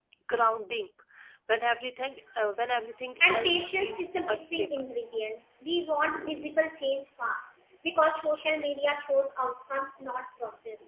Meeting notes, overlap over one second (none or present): present